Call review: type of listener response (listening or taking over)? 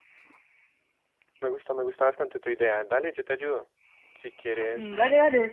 taking over